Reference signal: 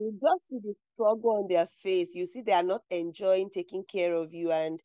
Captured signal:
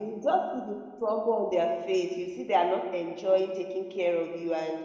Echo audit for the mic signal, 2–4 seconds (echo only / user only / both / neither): echo only